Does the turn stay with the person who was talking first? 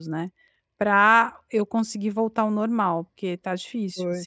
No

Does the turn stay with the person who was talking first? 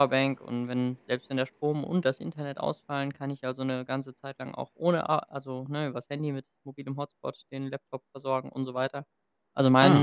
Yes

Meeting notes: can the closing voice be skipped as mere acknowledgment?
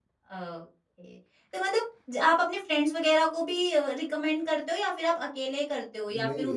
No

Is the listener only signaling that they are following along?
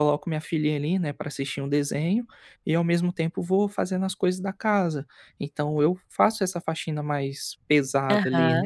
No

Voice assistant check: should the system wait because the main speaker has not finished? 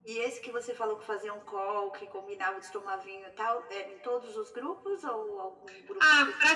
No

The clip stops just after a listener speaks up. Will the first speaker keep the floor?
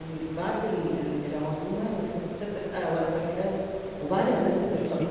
Yes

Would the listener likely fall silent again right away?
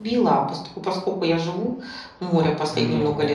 Yes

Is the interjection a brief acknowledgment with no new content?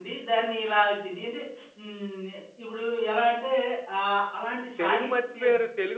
No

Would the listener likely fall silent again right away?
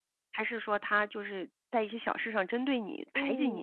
No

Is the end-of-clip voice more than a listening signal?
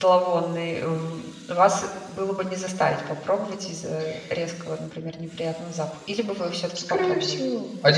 Yes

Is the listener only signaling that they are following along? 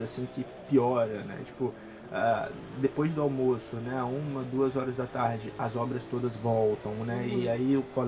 Yes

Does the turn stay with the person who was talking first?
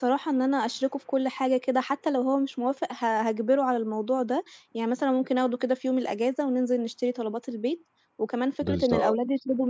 Yes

